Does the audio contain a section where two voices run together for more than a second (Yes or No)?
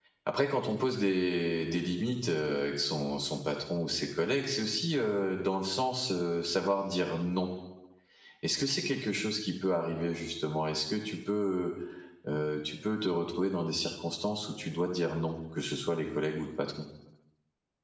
No